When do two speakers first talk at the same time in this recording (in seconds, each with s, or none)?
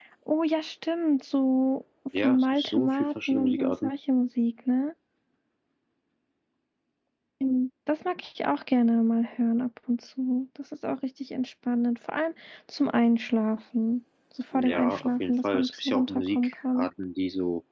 2.2 s